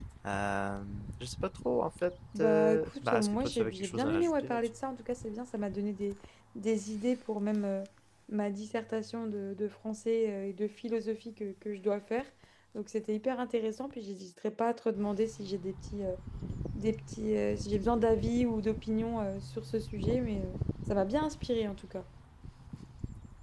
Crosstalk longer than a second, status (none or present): present